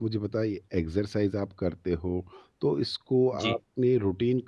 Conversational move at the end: listening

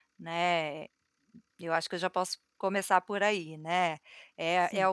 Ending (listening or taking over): listening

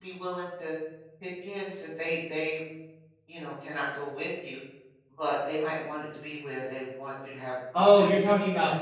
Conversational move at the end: taking over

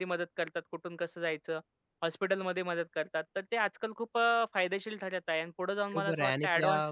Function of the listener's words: taking over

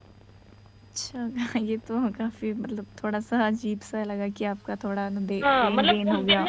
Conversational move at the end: taking over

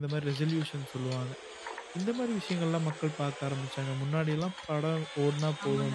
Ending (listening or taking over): taking over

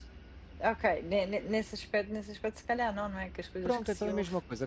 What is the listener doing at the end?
taking over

